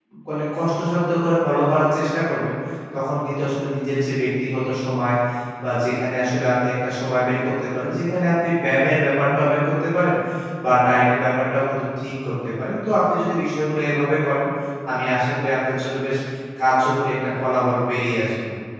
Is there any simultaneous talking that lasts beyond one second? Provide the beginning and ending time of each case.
none

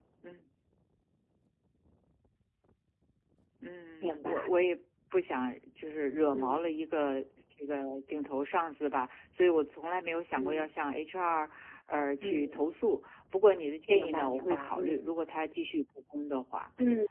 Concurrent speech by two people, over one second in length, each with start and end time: 13.9-15.1

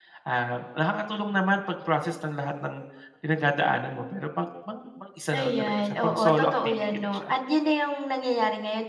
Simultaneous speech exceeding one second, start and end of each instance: 5.4-7.3

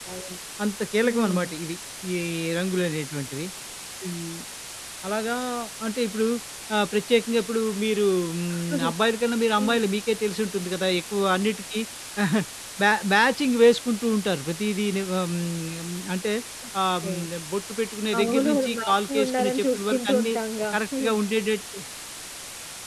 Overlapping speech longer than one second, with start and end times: 18.2-20.3

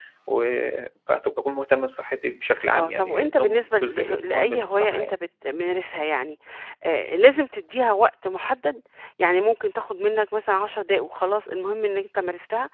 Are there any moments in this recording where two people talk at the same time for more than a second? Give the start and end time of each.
2.7-5.1

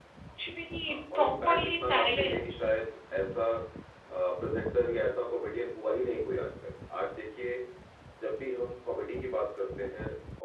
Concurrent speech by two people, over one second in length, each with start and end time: 0.9-2.5

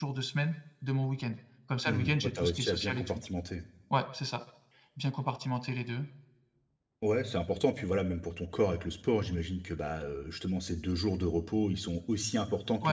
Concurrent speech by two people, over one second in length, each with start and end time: 1.9-3.2

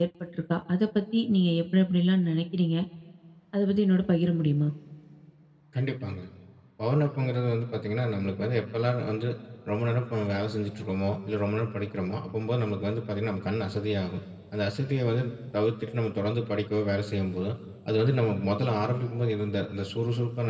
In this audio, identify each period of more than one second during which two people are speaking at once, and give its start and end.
none

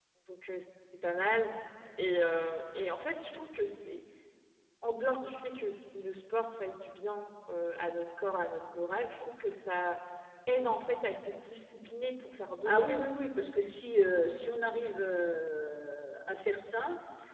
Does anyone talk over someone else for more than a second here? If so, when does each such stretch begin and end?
none

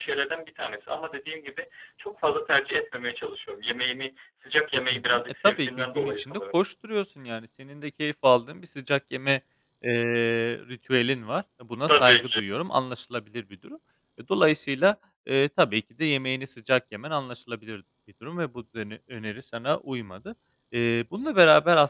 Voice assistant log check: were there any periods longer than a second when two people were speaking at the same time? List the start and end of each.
4.9-6.4

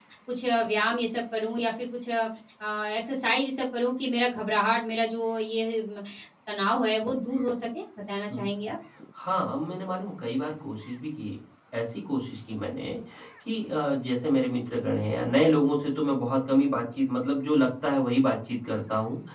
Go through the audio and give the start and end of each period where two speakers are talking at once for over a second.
none

